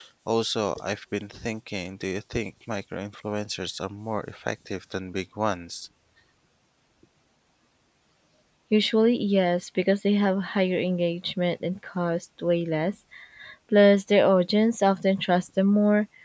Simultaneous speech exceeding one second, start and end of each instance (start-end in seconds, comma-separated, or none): none